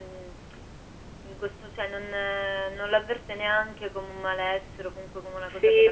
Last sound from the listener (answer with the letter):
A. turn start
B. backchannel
A